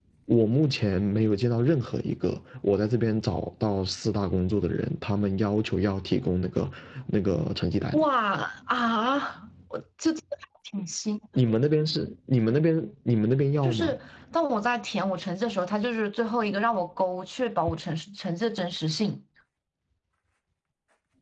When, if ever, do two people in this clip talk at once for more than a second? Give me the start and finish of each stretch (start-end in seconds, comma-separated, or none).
none